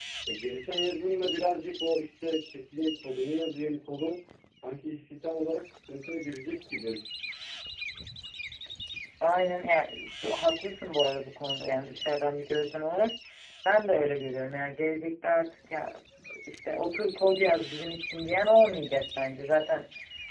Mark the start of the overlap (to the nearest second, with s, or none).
none